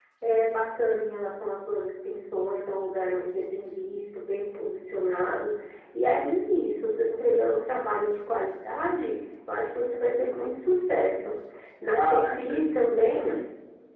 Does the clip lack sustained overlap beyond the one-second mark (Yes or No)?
No